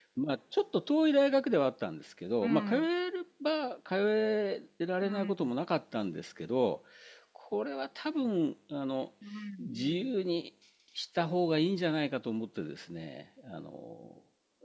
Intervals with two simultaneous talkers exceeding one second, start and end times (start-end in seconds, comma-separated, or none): none